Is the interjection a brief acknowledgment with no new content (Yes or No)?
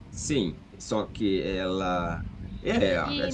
No